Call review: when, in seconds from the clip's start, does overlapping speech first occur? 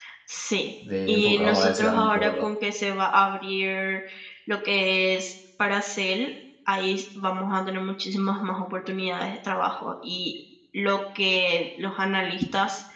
1 s

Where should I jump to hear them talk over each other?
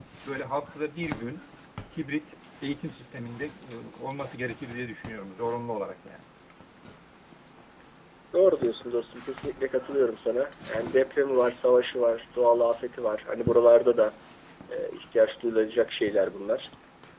none

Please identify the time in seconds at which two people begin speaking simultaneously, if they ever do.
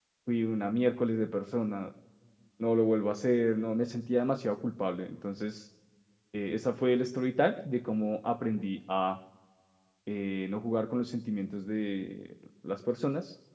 none

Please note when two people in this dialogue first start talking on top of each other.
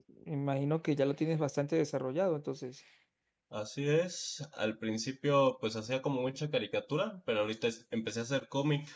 none

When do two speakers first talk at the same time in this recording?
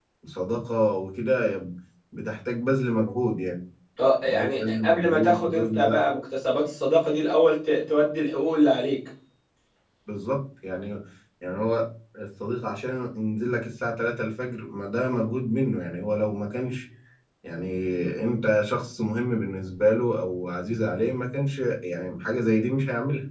4 s

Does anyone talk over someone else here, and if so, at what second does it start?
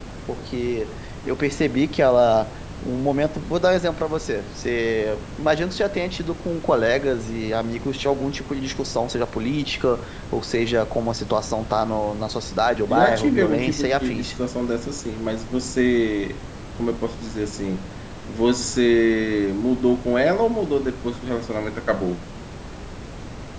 13 s

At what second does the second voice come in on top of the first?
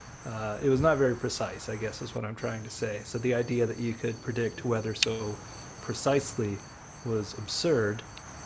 none

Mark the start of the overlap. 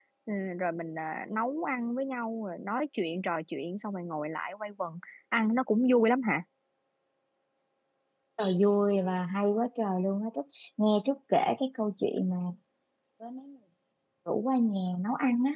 none

